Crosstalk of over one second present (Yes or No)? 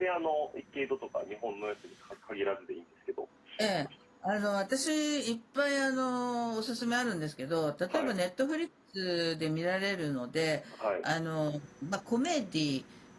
No